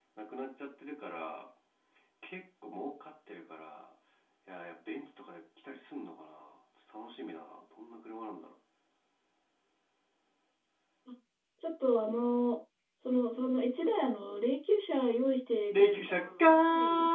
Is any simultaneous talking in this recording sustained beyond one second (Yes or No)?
Yes